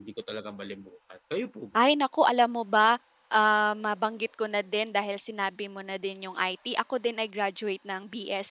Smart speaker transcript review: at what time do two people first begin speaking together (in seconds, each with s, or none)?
none